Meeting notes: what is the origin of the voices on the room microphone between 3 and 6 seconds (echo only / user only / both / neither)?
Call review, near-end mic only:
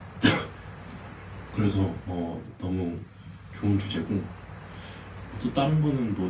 echo only